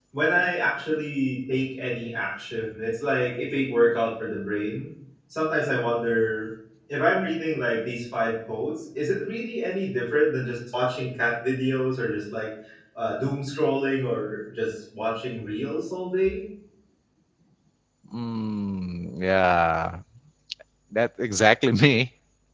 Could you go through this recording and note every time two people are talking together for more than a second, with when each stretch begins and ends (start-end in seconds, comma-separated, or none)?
none